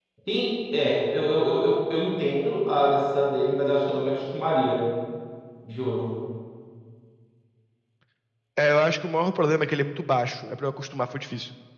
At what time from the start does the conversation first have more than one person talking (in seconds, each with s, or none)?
none